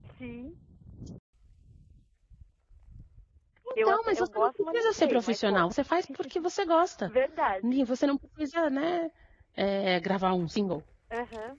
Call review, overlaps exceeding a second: present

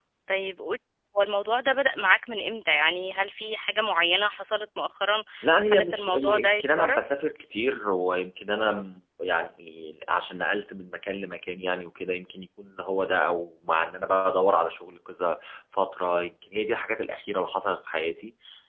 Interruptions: present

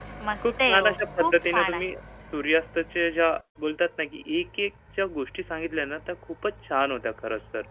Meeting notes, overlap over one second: present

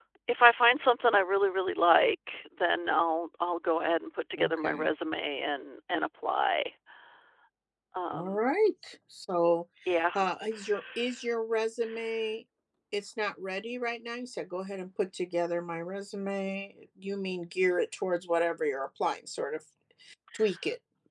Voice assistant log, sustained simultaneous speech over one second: none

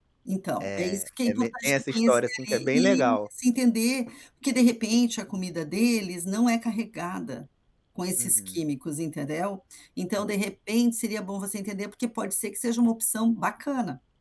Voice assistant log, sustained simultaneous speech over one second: present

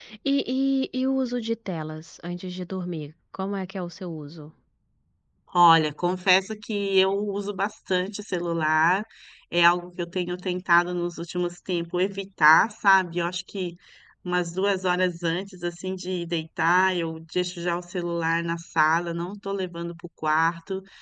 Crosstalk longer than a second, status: none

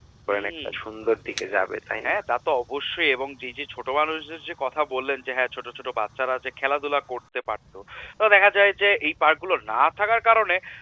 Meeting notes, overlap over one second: none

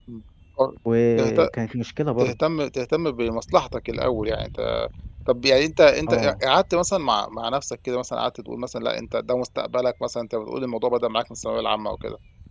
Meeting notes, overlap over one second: none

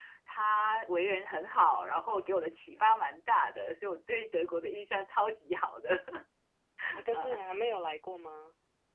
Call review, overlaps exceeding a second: none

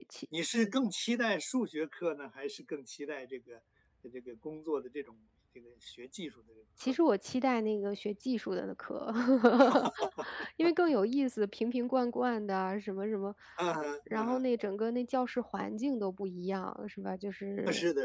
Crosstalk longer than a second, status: none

